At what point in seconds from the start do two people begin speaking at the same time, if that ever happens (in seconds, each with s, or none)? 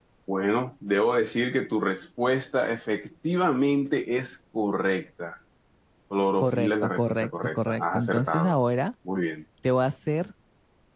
6.4 s